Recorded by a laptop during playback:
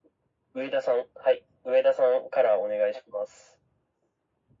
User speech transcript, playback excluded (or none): none